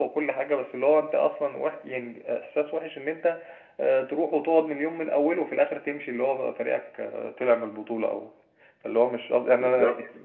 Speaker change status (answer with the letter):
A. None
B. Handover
B